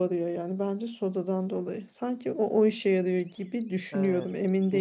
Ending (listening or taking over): taking over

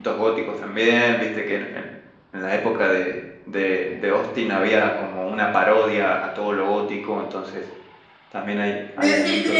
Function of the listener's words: taking over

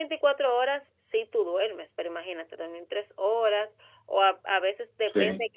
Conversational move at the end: listening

